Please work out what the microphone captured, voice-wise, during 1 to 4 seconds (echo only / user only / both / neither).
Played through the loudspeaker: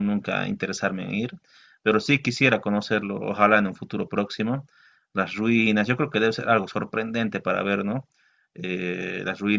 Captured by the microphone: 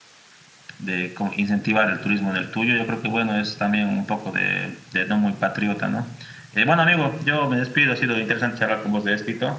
user only